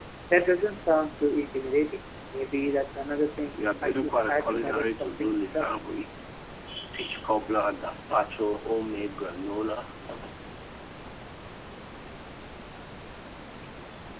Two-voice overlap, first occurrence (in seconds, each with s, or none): 3.8 s